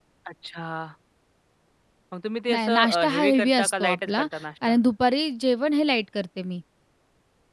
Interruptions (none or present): present